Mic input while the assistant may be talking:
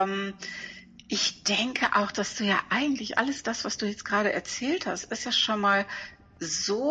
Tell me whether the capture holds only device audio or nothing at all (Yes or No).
Yes